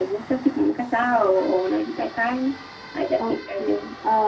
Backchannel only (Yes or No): No